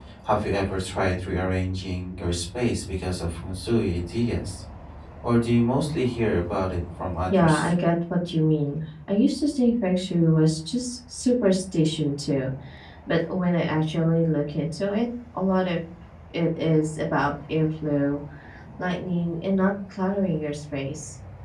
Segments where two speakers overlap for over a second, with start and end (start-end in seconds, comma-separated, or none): none